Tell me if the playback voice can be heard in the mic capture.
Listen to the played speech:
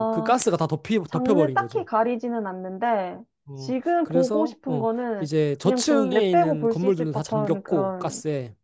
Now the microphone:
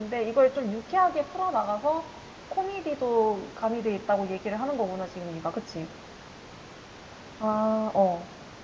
No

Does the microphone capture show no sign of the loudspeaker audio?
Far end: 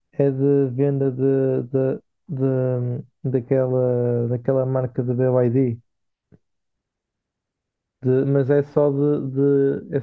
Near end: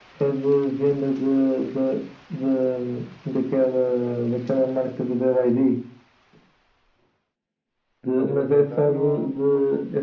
No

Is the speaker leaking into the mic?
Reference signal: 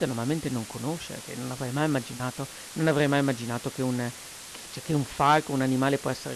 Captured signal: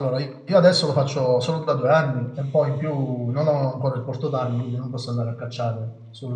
No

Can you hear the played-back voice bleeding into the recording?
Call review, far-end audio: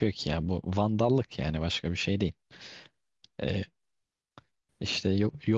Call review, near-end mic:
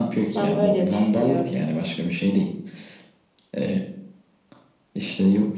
Yes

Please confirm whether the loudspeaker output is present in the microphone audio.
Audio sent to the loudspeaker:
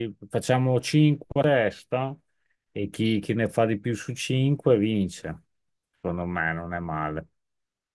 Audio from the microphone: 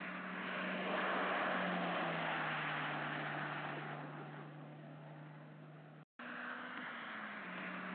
No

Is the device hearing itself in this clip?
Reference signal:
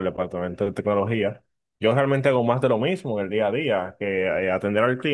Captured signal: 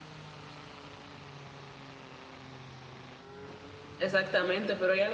No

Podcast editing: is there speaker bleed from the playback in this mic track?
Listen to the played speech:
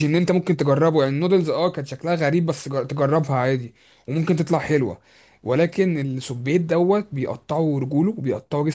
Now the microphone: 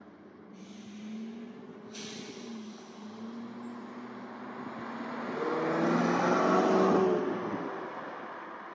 No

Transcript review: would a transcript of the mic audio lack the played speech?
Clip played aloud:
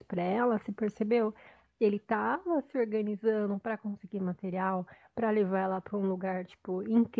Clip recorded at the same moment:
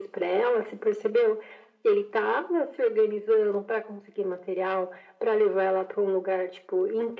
No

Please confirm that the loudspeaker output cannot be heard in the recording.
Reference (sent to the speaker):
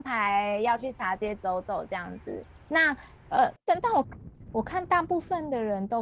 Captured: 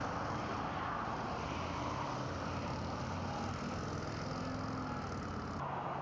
Yes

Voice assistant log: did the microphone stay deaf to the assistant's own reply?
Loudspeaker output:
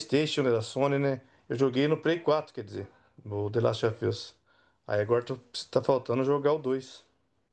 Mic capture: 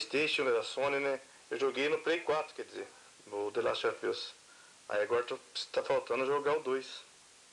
No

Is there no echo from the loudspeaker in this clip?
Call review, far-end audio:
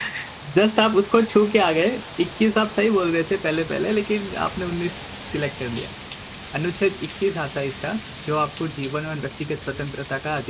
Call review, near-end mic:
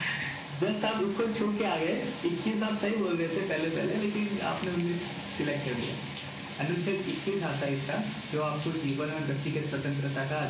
No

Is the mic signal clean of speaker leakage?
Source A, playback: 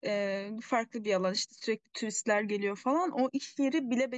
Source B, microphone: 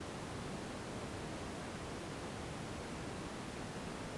Yes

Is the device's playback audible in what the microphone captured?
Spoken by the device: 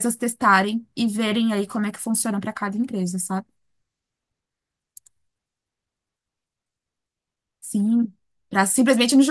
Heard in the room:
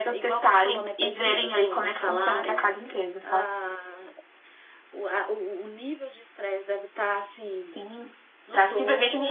Yes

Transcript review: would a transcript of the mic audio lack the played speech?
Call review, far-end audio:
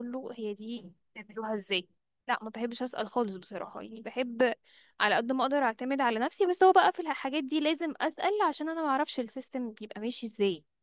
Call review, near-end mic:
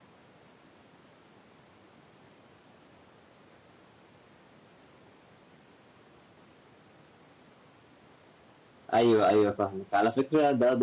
Yes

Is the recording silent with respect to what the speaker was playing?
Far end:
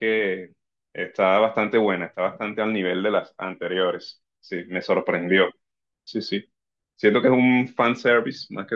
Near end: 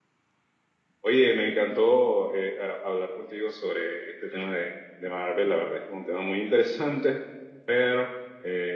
Yes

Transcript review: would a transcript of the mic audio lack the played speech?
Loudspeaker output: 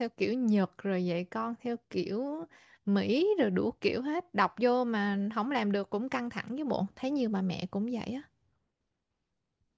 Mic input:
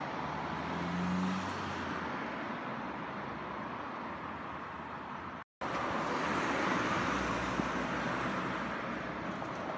Yes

